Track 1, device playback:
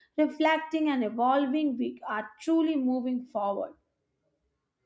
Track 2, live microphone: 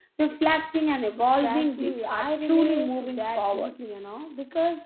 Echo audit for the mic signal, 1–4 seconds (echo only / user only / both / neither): both